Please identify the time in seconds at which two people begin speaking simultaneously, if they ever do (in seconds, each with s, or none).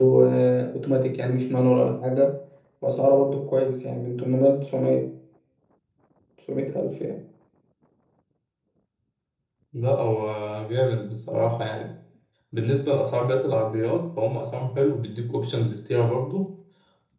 none